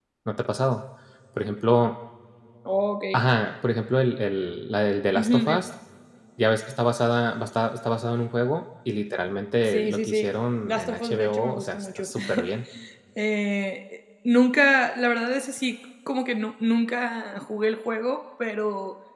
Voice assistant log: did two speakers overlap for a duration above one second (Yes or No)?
Yes